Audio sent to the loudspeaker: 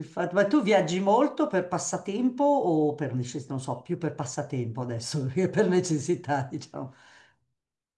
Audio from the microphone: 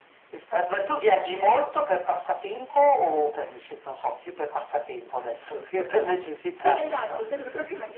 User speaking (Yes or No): Yes